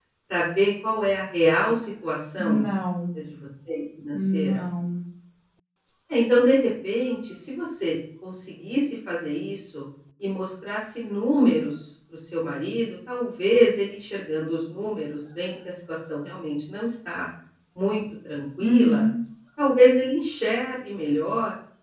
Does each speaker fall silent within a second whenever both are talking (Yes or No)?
Yes